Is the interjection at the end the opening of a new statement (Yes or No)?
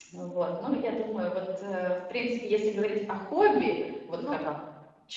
No